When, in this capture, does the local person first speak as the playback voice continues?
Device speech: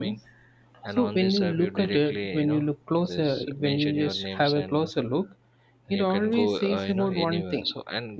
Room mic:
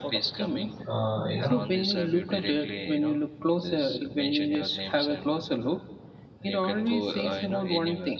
0.9 s

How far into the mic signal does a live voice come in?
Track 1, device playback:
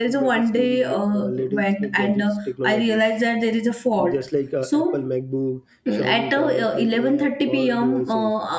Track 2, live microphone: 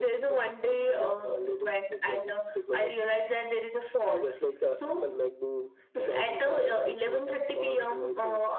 none

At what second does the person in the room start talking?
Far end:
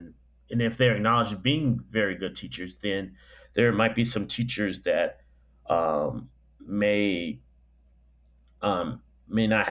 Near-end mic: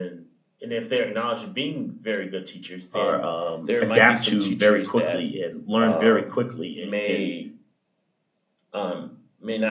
2.9 s

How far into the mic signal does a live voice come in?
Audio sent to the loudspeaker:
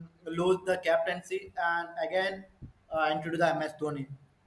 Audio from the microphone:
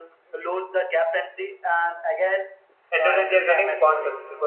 2.9 s

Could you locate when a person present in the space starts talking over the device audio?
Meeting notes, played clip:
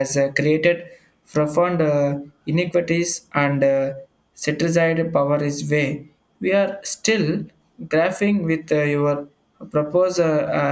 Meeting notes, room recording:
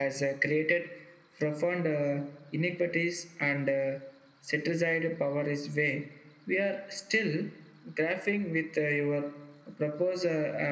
none

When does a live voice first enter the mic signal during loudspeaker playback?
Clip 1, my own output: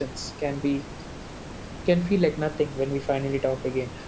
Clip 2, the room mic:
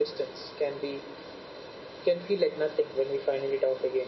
none

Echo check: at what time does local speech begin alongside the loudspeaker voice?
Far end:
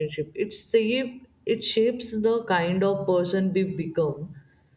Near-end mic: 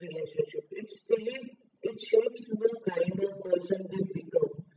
none

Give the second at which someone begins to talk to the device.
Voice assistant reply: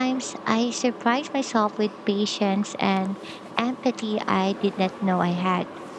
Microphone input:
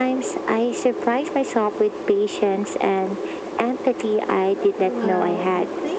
4.8 s

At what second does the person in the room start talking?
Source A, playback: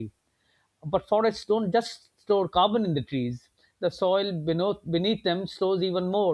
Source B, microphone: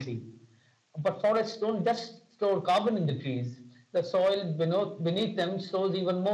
none

